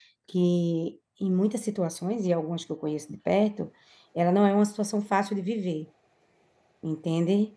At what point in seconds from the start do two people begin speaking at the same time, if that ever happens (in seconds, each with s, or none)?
none